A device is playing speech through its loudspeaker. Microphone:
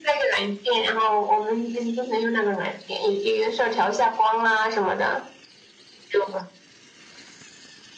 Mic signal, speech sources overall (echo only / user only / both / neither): echo only